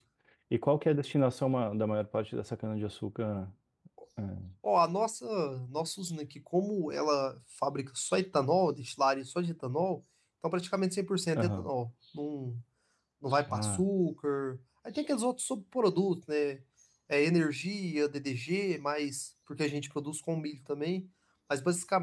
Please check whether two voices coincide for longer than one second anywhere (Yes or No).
No